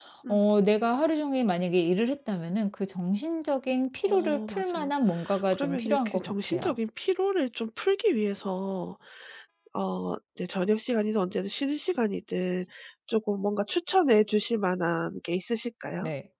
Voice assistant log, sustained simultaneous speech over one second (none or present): present